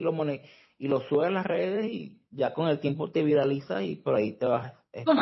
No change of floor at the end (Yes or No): No